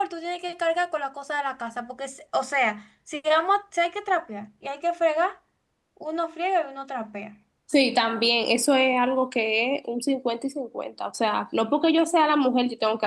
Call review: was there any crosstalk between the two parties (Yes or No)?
No